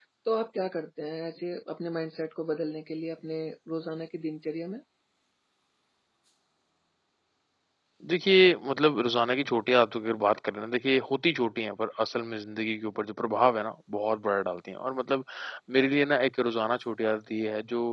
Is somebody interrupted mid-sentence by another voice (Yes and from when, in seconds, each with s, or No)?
No